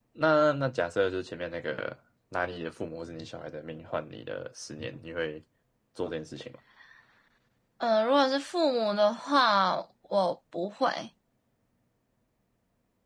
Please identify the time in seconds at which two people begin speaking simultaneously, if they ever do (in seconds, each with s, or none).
none